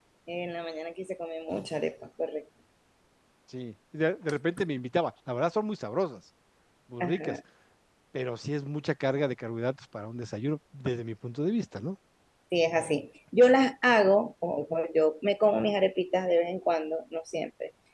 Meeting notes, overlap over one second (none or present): none